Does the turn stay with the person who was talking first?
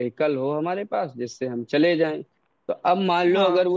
Yes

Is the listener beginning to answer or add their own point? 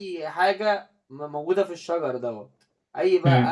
No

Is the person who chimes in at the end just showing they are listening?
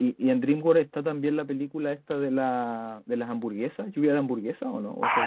No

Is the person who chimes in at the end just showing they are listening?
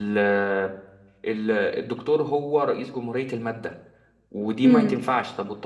Yes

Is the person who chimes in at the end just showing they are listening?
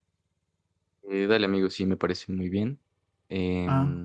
Yes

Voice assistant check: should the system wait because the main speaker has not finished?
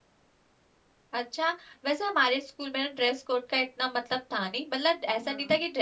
Yes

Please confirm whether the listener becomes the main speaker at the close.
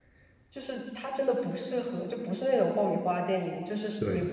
No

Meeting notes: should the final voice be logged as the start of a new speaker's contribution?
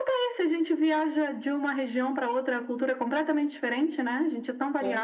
Yes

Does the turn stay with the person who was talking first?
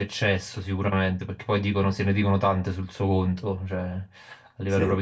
Yes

